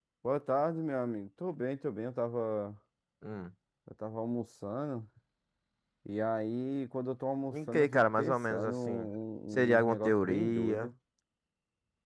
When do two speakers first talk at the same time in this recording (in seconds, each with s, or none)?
7.5 s